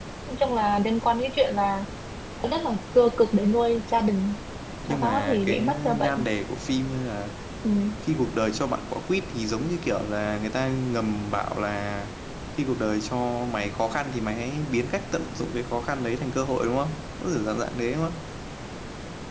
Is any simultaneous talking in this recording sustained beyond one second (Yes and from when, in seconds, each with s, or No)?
Yes, from 4.9 s